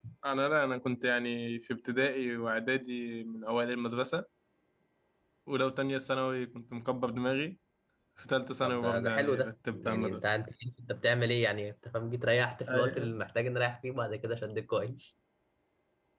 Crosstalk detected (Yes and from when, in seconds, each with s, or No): Yes, from 8.6 s